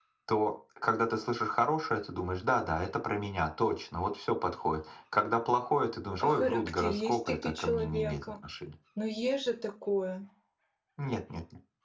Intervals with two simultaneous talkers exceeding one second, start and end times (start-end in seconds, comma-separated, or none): 6.2-8.2